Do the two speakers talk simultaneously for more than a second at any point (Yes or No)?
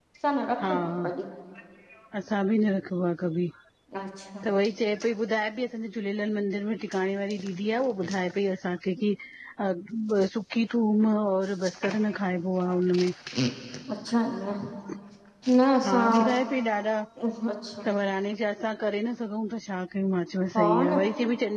No